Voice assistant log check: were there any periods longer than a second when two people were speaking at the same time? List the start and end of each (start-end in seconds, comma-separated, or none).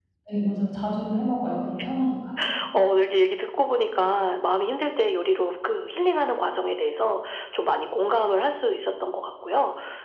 none